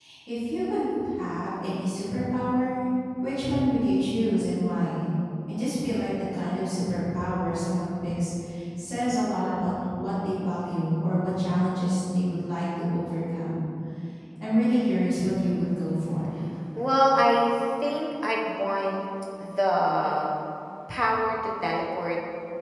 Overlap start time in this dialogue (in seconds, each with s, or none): none